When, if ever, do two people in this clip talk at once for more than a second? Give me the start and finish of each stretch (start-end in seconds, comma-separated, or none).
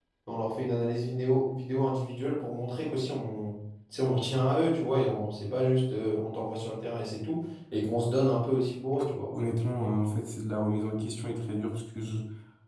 none